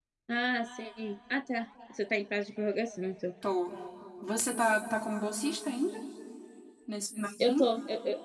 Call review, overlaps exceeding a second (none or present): none